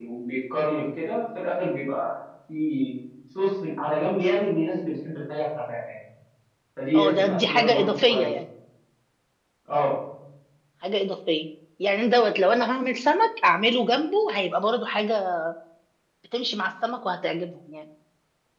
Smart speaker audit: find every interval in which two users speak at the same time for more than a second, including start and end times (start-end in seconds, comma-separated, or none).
6.9-8.3